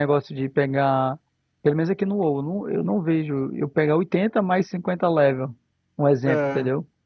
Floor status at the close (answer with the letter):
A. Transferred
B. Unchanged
A